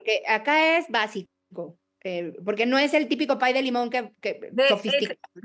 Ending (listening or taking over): taking over